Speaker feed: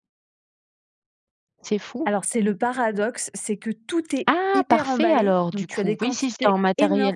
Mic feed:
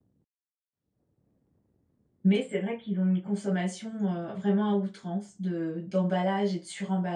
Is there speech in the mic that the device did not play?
Yes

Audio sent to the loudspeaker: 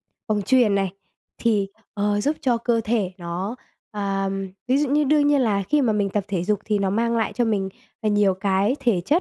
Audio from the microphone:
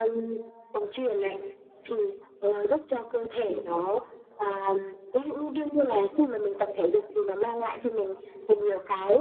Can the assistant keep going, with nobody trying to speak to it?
No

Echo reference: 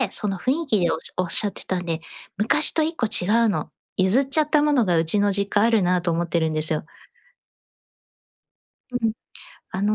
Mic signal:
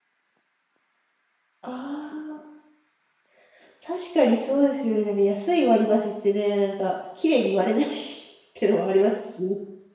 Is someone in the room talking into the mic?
Yes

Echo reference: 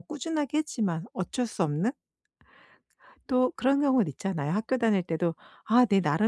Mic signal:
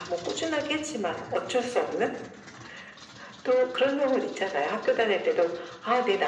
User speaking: No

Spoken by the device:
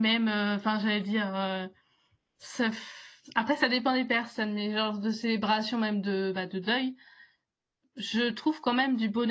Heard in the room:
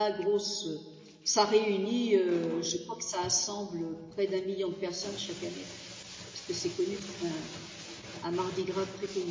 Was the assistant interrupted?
Yes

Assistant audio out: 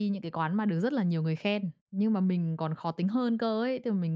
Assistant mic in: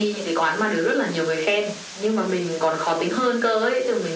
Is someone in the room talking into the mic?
No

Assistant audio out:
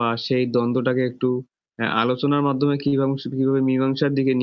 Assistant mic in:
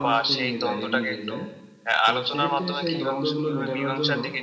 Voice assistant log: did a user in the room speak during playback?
Yes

